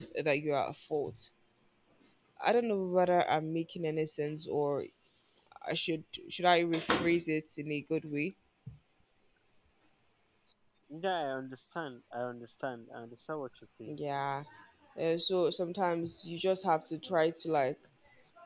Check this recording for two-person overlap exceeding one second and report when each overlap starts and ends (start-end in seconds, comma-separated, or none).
none